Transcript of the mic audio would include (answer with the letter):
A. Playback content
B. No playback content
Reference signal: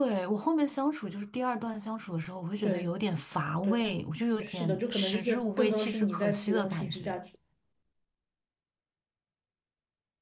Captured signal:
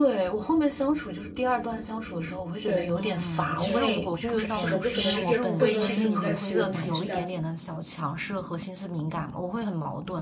A